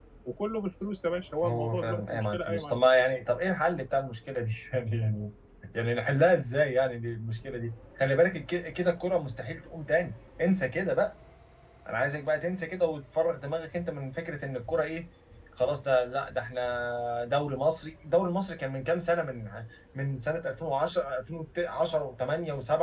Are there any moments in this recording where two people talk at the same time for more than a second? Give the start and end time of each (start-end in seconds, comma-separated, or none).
1.4-3.0